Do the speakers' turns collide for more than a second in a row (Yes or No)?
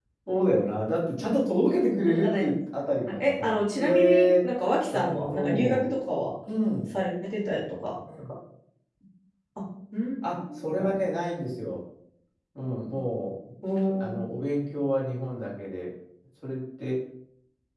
Yes